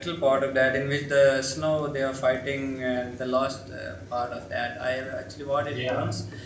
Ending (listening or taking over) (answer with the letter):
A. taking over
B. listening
B